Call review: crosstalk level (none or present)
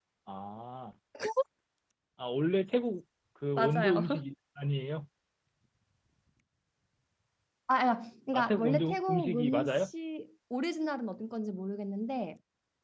present